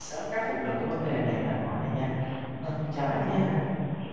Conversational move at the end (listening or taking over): taking over